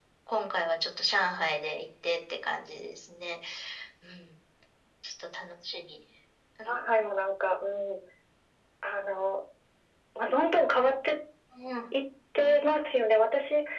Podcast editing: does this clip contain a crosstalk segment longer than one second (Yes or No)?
No